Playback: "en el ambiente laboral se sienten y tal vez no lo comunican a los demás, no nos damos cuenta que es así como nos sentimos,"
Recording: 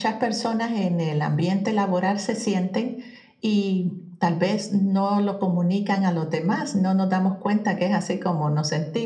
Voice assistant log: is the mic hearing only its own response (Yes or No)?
Yes